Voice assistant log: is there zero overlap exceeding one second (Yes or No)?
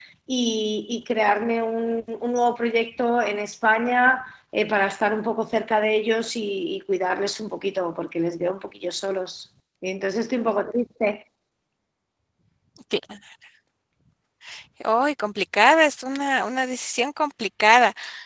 Yes